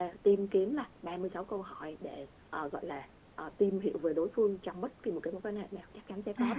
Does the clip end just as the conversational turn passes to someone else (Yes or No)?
Yes